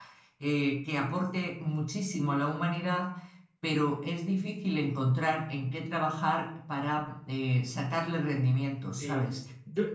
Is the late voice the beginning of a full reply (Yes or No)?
Yes